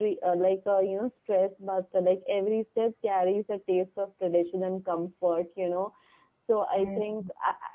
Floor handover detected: No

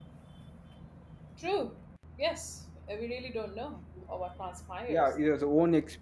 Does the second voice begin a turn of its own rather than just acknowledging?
Yes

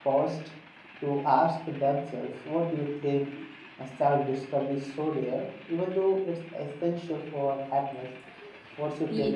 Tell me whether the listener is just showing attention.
No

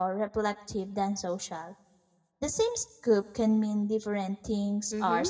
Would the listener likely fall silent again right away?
No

